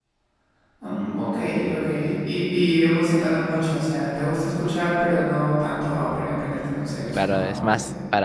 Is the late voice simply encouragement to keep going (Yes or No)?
No